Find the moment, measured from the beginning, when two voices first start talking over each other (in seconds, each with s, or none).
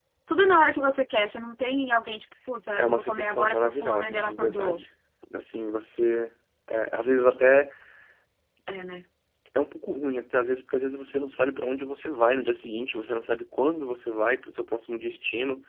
2.8 s